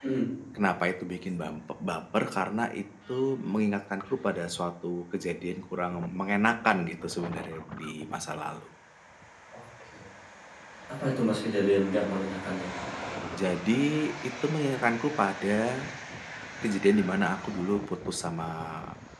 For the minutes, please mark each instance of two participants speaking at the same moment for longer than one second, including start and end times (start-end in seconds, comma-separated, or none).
none